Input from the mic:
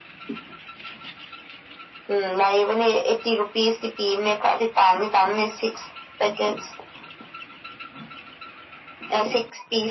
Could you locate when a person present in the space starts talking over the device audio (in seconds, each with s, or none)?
none